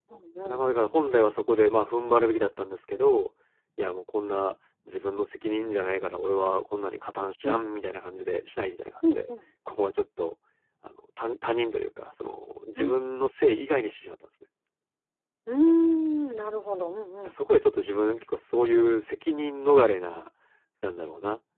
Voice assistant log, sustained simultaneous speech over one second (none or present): none